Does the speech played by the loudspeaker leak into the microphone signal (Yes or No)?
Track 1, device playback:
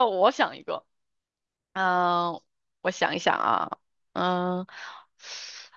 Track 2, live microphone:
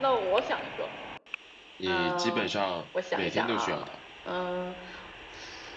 Yes